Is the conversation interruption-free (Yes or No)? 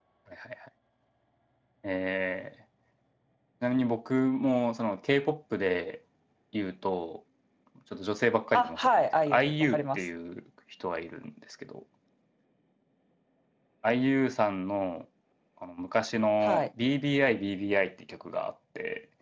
No